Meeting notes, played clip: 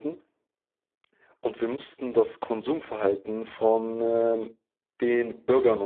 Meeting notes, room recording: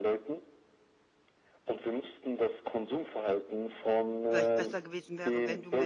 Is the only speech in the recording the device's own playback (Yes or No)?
No